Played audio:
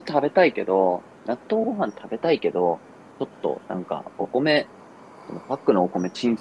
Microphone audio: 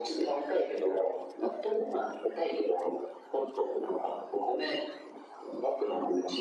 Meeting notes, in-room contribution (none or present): none